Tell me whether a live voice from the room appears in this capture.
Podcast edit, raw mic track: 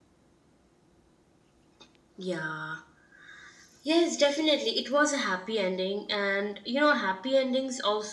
No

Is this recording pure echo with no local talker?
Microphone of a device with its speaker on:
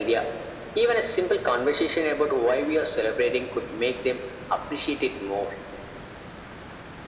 Yes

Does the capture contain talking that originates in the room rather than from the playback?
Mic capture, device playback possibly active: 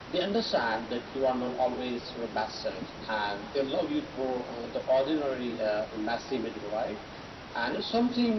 No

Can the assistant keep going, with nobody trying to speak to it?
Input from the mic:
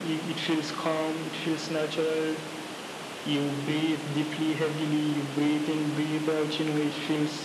Yes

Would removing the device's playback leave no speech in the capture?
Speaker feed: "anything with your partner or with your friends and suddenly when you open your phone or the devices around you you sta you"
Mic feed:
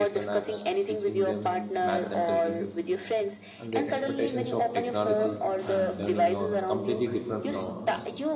No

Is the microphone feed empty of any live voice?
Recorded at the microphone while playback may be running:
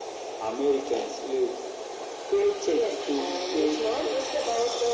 Yes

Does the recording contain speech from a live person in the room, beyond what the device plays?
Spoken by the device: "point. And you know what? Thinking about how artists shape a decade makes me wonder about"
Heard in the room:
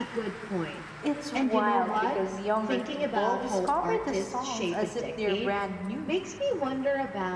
Yes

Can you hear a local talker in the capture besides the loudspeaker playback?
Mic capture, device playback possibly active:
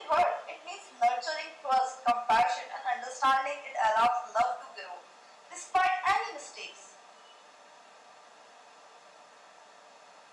No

